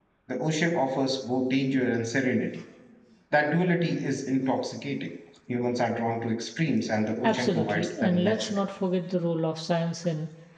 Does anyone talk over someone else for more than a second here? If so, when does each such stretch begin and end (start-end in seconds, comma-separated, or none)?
7.2-8.6